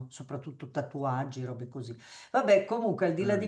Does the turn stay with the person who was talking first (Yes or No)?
Yes